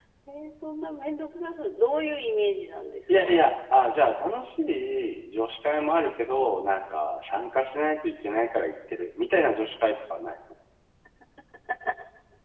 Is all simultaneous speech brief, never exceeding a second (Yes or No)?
Yes